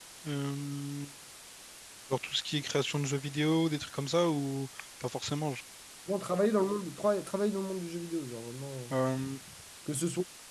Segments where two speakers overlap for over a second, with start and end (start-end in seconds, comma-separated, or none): none